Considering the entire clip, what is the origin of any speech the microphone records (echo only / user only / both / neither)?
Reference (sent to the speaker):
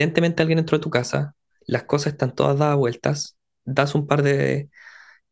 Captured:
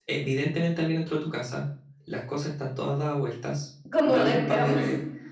both